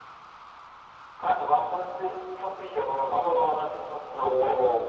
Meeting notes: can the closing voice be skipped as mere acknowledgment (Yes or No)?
No